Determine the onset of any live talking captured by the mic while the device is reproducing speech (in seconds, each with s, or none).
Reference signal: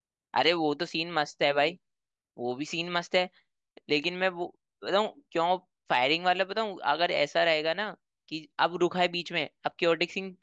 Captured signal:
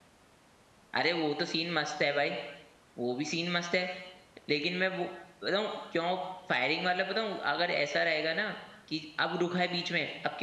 none